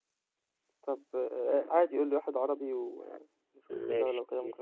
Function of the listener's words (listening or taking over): taking over